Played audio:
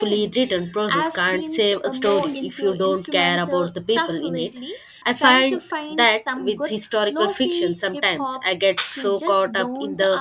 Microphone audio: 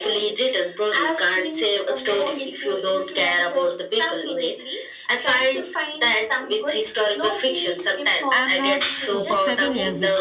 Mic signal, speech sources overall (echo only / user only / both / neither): both